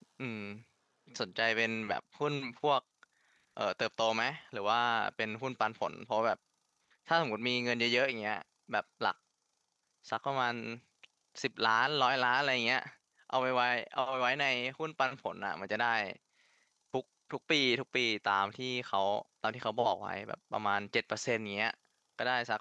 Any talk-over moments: No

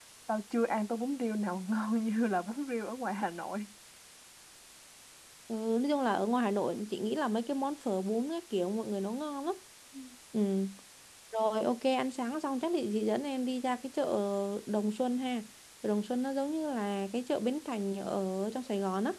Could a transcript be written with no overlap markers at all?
Yes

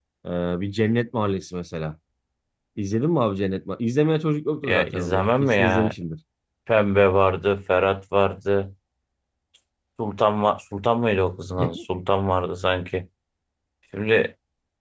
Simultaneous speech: Yes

